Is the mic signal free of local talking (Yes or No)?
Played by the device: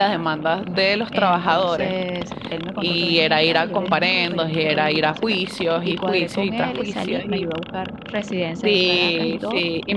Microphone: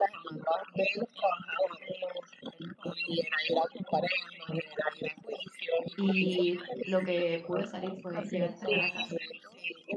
No